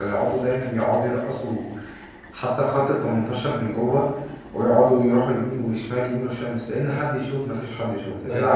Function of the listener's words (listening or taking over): taking over